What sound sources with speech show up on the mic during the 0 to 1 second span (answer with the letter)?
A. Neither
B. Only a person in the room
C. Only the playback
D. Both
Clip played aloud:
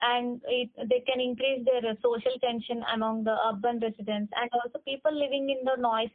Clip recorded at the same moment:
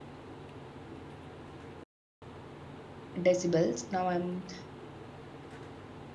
A